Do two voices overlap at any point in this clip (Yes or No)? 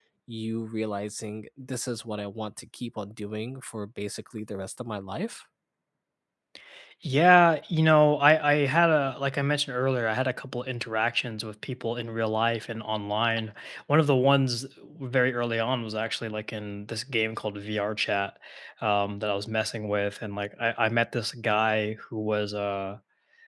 No